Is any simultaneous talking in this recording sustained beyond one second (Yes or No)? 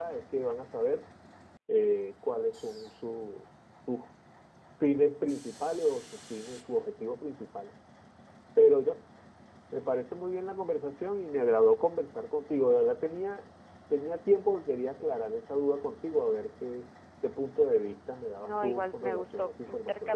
Yes